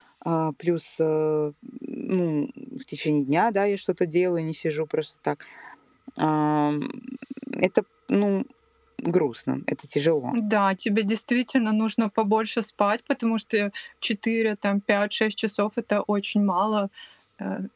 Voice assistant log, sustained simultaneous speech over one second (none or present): none